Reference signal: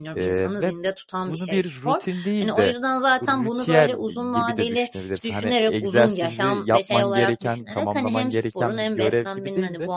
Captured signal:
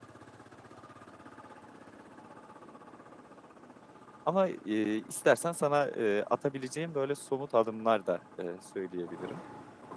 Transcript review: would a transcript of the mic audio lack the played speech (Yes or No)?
Yes